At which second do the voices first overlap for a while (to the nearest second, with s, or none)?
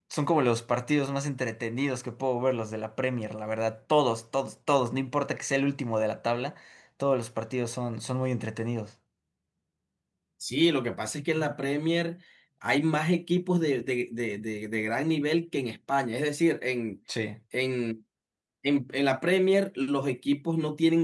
none